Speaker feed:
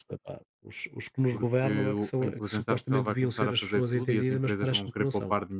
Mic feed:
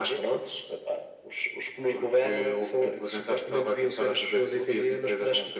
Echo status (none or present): present